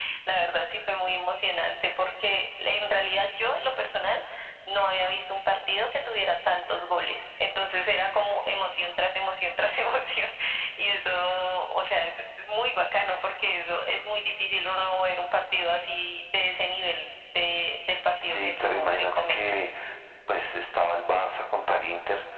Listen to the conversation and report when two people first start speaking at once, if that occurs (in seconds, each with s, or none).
18.2 s